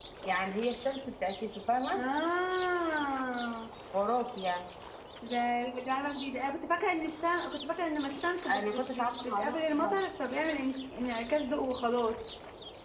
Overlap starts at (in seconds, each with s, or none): 8.5 s